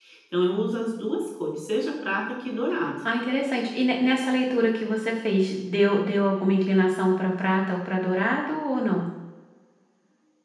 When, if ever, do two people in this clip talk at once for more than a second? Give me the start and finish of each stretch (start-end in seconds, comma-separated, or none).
none